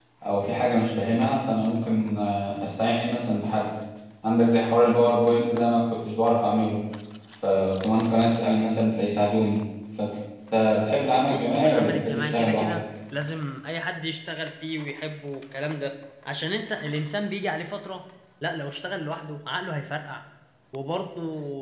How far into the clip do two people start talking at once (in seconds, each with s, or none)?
11.3 s